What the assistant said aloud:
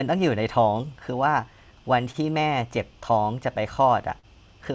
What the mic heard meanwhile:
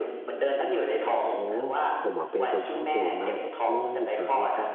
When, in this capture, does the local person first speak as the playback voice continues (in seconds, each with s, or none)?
1.2 s